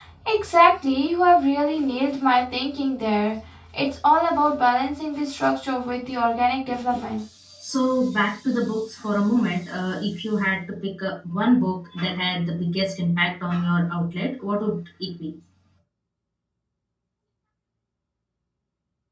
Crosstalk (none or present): none